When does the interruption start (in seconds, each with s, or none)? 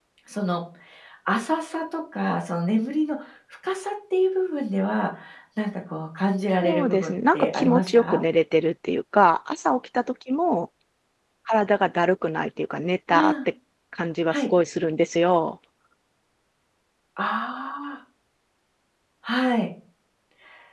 6.6 s